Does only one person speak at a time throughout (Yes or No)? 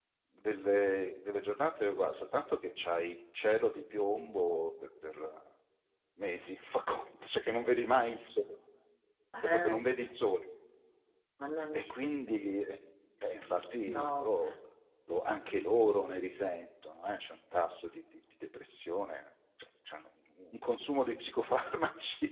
No